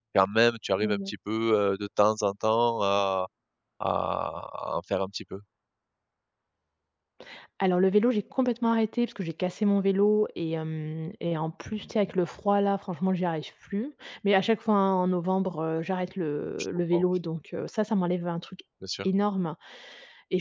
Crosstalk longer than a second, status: none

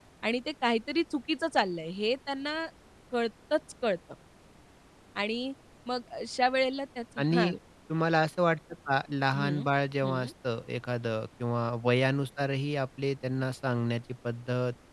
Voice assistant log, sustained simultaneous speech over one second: none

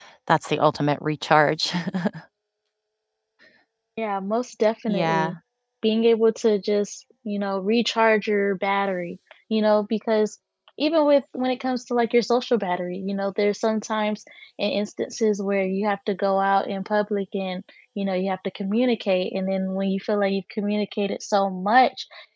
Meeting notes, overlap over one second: none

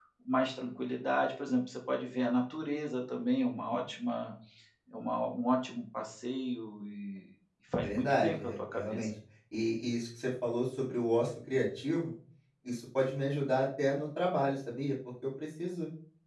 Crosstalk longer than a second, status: present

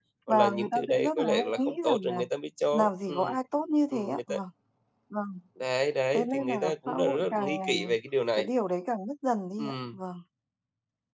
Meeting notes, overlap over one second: present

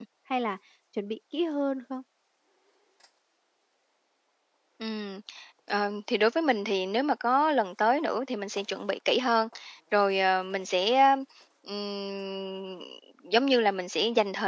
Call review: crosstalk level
none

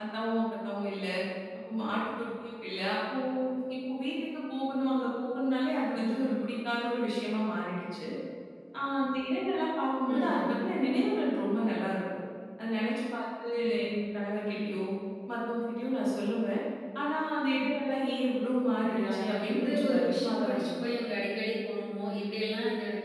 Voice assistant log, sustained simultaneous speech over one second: present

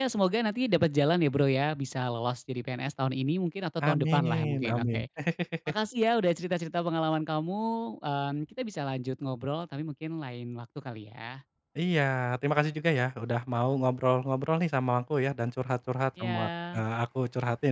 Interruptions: present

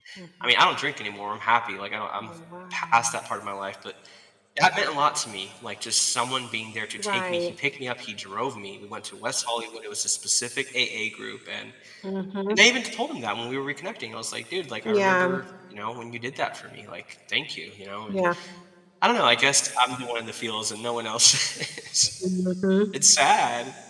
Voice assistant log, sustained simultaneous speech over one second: none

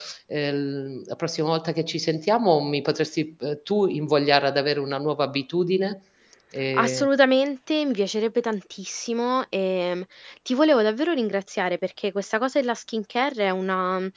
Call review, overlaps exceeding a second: none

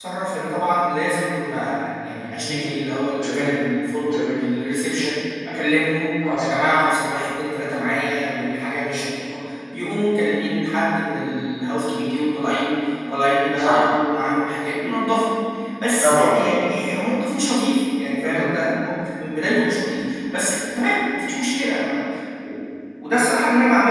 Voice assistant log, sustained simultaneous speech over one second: none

